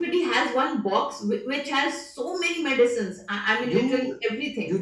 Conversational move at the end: taking over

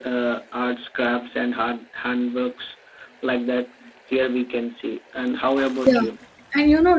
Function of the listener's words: taking over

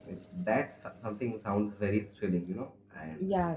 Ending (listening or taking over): taking over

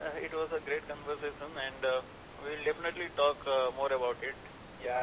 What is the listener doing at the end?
taking over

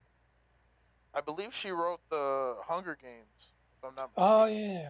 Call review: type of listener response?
taking over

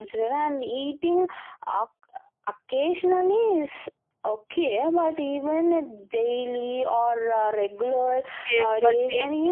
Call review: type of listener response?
taking over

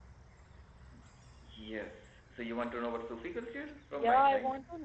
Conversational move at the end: taking over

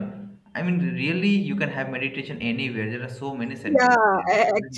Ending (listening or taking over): taking over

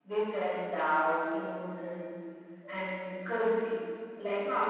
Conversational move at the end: listening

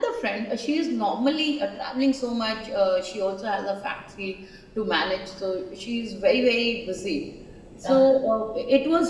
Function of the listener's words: listening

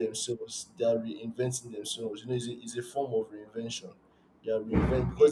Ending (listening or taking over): listening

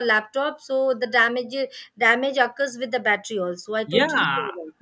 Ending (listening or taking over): taking over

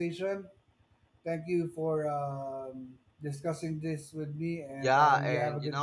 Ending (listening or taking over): taking over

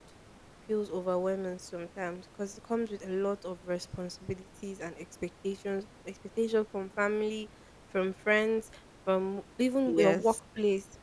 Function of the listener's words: listening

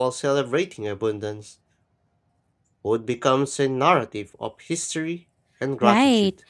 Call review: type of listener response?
taking over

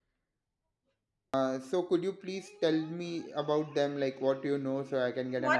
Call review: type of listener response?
taking over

